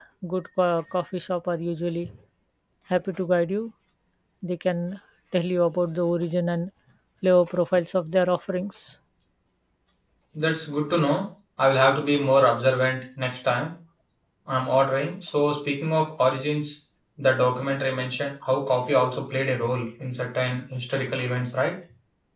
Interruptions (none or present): none